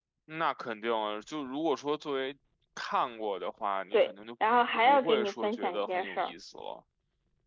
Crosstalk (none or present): present